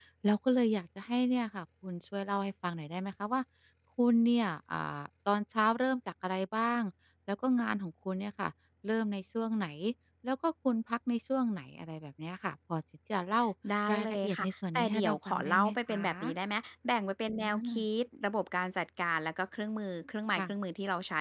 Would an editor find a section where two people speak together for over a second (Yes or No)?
Yes